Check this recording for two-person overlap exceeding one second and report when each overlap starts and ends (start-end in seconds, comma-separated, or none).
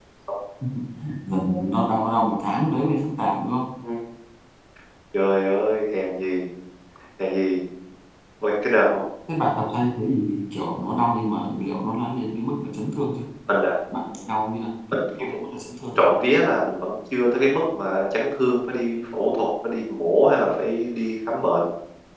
none